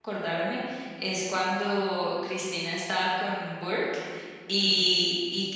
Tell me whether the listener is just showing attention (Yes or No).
Yes